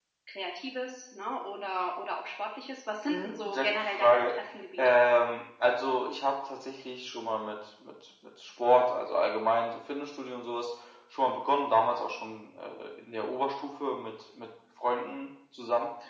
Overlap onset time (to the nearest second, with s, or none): 3 s